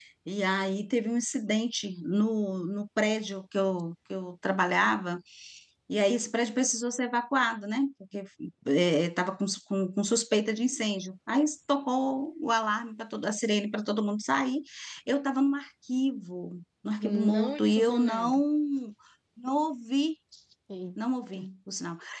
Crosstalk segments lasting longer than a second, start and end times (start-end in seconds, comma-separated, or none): 17.0-18.4